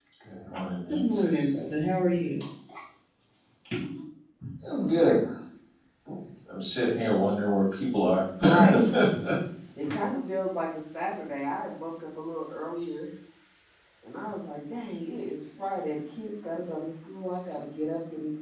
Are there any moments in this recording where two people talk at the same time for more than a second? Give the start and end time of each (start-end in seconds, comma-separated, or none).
none